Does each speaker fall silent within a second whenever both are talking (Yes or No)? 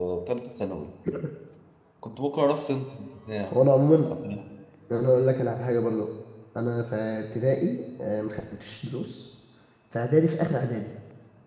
Yes